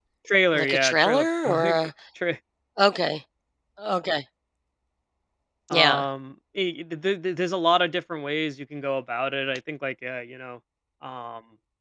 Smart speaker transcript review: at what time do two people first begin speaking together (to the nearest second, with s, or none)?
1 s